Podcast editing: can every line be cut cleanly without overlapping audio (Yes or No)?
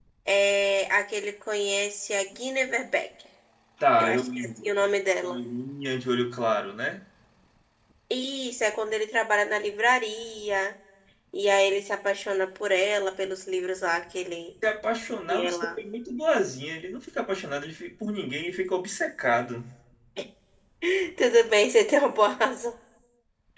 No